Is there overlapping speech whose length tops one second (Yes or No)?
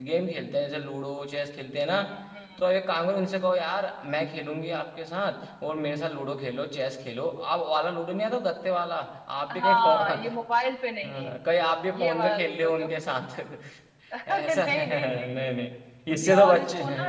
Yes